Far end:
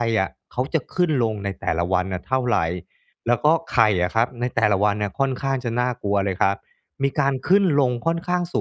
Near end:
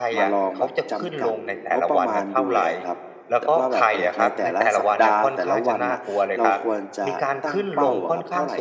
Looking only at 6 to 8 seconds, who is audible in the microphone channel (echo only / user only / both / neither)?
both